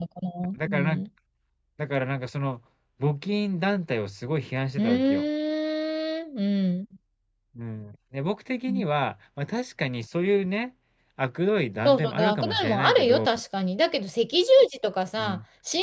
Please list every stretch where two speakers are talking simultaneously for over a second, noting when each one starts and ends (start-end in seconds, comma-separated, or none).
11.8-13.3